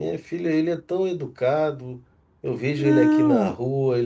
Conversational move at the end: listening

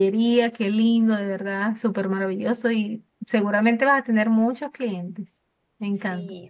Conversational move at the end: taking over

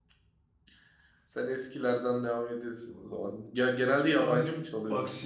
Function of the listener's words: taking over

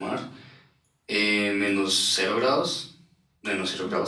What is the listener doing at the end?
listening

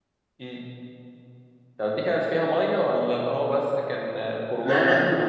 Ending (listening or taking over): taking over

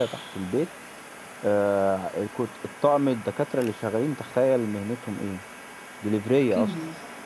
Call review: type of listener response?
taking over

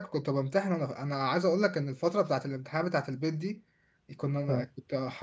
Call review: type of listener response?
listening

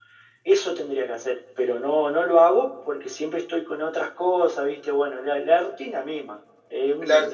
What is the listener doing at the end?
taking over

